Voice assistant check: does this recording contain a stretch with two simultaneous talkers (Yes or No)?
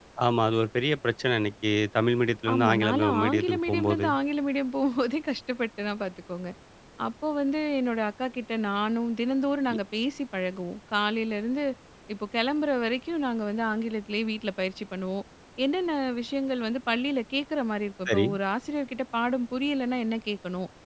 Yes